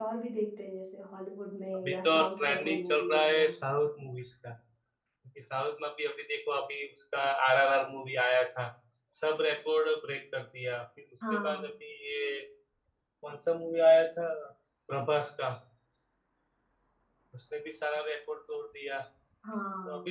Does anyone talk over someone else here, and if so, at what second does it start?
1.7 s

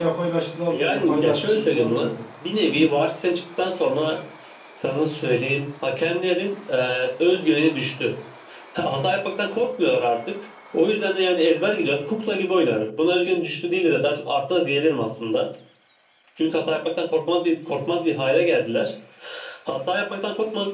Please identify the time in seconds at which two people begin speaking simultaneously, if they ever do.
0.7 s

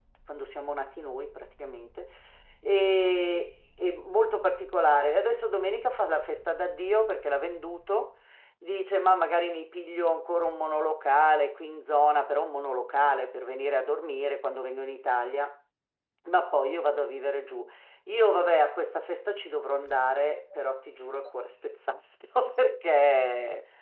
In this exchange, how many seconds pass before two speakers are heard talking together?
none

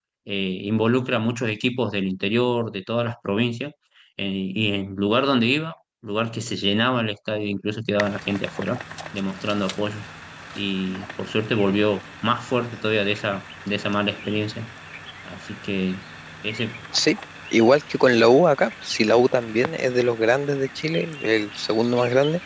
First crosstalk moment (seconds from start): none

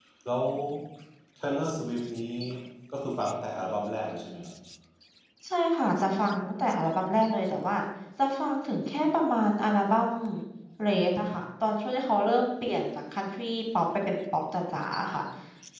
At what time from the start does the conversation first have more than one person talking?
none

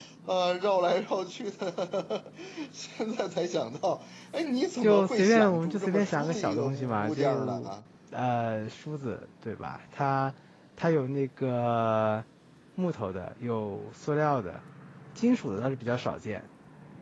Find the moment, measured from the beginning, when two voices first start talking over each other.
4.8 s

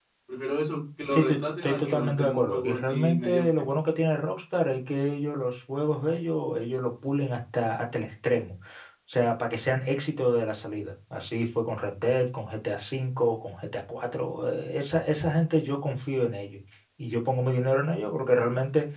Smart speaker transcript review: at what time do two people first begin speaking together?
1.1 s

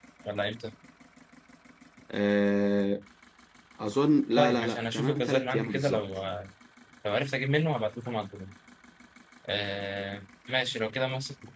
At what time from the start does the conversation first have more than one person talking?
4.4 s

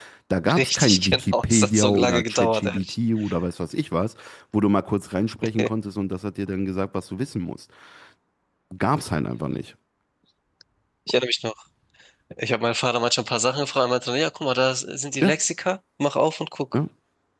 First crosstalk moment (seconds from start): 0.6 s

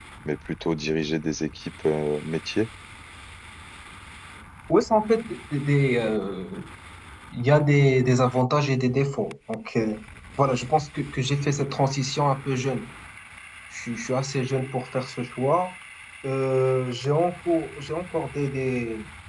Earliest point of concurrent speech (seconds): none

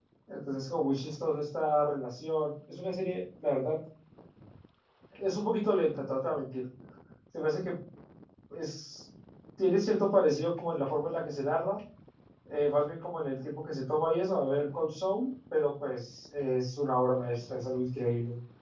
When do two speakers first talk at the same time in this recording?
none

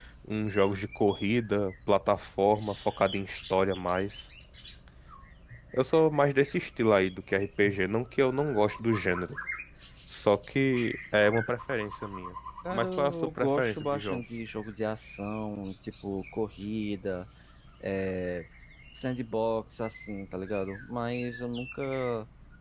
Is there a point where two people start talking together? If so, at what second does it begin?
12.6 s

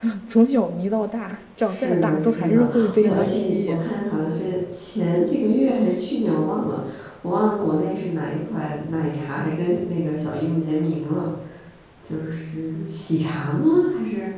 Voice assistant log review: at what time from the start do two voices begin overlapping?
1.6 s

